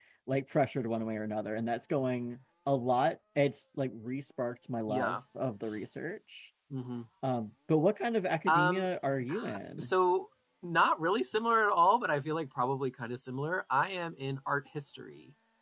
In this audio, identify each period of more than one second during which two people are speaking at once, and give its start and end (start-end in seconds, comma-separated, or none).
none